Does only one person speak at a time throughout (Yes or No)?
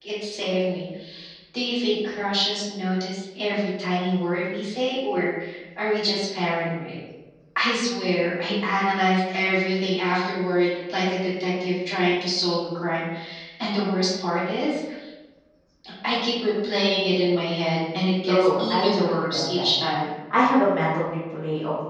No